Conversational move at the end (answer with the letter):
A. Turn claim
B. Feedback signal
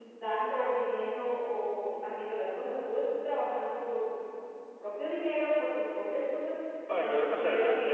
A